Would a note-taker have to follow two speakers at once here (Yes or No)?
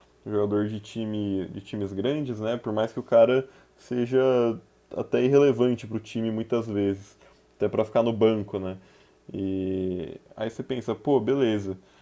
No